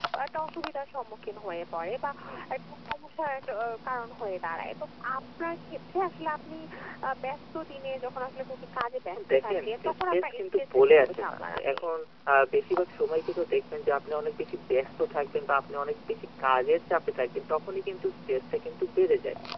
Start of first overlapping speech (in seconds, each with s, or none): 9.1 s